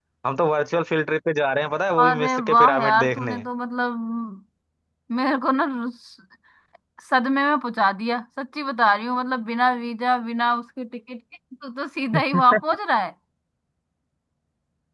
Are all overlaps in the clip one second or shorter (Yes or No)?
No